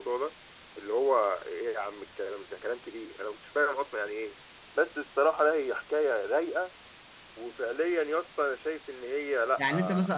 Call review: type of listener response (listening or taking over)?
taking over